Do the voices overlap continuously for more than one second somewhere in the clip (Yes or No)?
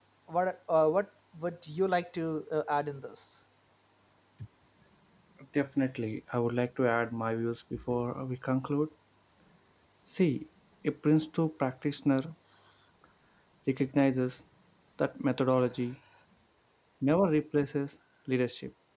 No